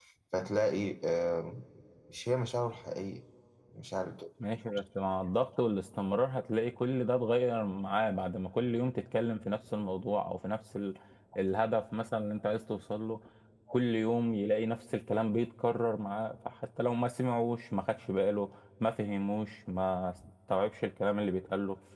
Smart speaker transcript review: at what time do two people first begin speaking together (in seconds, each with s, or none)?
none